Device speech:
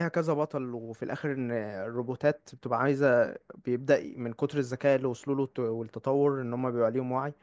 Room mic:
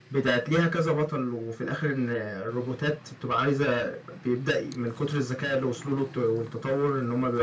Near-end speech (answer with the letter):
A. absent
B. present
A